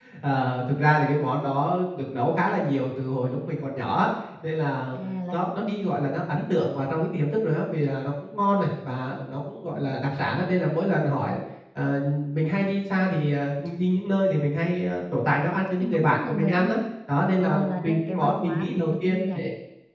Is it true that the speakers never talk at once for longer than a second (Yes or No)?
No